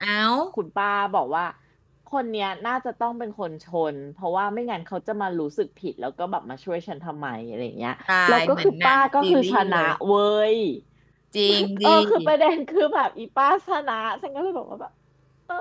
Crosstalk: present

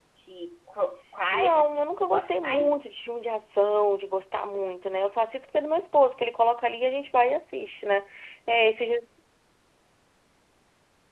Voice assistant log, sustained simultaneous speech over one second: present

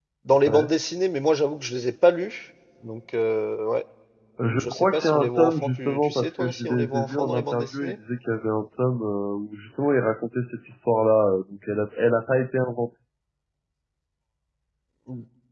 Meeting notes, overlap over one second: present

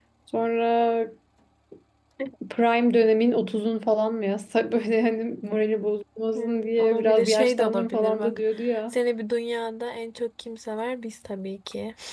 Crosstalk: present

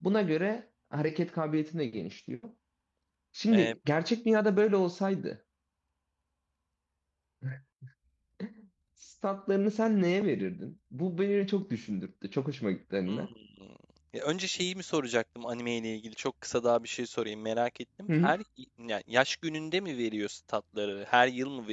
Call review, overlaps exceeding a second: none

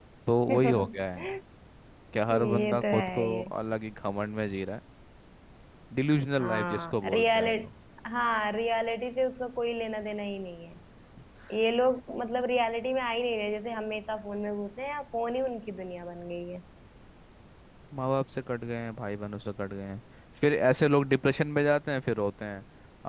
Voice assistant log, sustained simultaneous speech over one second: present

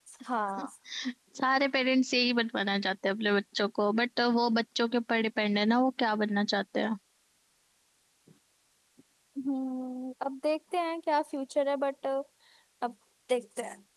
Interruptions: none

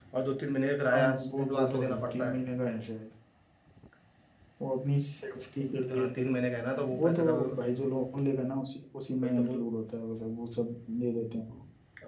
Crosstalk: present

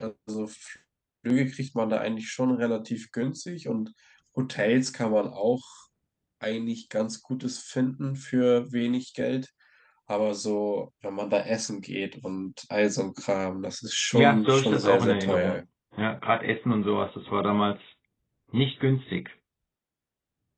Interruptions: present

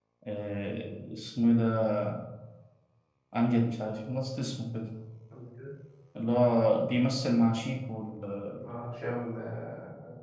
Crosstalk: none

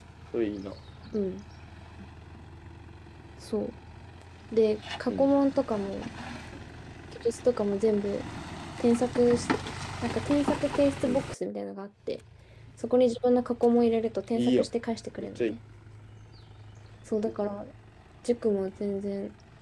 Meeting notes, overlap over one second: none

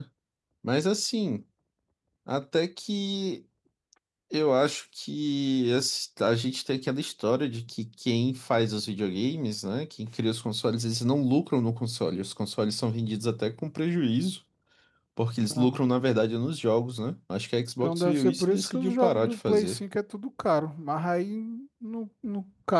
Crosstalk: present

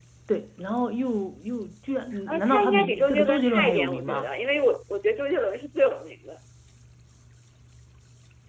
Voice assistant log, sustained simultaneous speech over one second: present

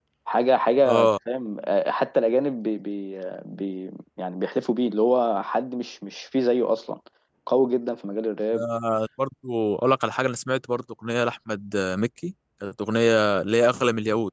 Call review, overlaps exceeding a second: none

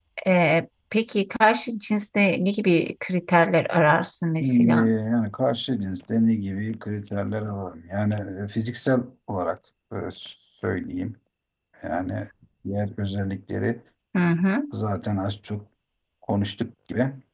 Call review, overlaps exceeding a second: none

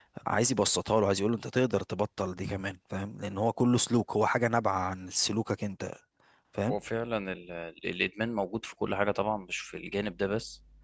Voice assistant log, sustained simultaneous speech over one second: none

